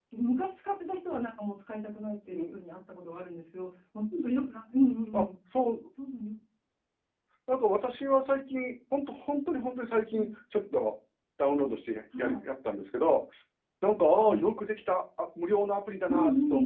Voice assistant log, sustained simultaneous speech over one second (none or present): none